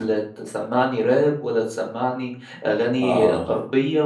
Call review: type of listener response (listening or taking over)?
listening